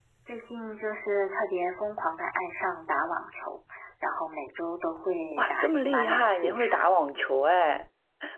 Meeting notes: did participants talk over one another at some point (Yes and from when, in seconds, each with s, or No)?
Yes, from 5.3 s